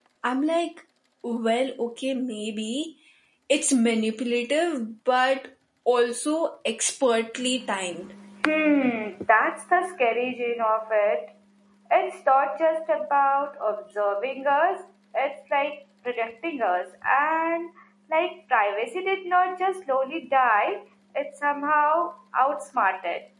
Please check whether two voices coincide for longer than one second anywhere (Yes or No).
No